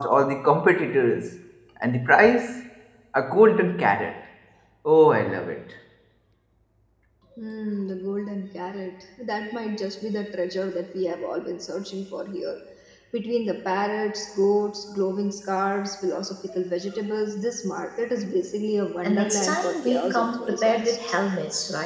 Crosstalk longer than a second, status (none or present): present